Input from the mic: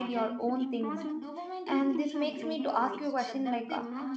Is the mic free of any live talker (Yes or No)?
No